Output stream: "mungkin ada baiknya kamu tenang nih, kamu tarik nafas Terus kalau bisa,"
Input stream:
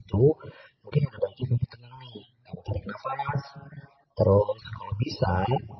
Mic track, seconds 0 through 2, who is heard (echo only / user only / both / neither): echo only